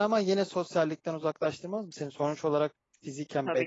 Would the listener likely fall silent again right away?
No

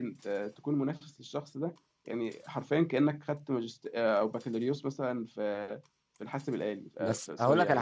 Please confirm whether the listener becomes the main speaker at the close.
Yes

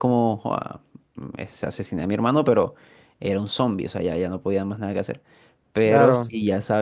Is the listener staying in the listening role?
Yes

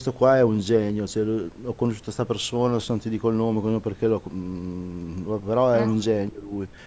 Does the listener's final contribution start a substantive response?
No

